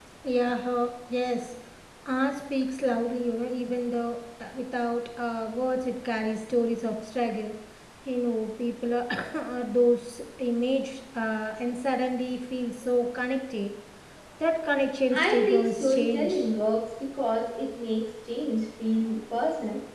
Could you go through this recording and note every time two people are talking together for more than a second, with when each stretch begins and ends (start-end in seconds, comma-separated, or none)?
15.1-16.5